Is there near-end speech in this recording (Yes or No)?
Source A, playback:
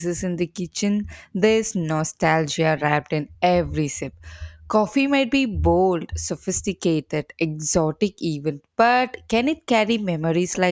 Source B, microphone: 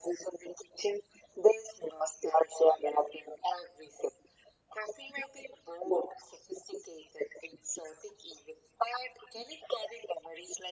No